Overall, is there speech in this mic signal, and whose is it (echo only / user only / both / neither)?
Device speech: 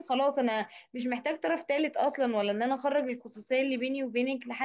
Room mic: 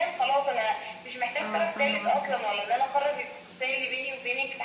both